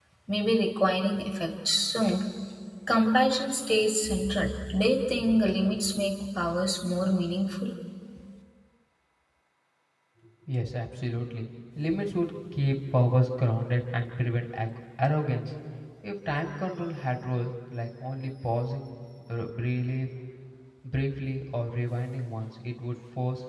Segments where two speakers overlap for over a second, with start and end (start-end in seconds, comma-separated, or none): none